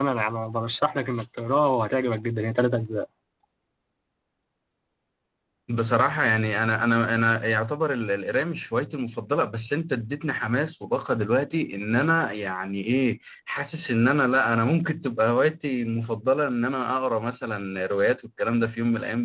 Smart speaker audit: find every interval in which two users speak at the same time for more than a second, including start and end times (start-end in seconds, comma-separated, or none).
none